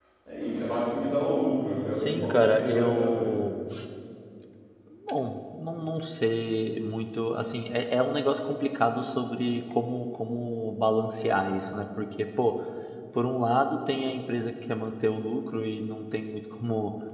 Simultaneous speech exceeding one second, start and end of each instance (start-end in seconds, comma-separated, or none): 2.0-3.3